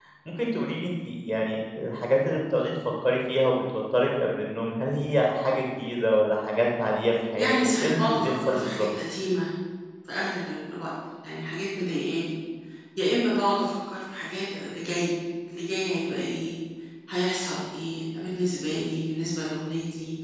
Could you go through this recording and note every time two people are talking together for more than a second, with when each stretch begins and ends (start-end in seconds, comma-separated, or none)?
7.4-8.9